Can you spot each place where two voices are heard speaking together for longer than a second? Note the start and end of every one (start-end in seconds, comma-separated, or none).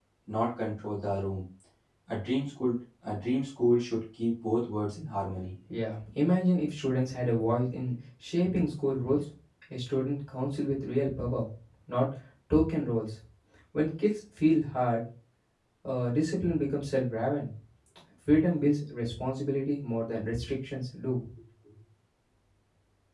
none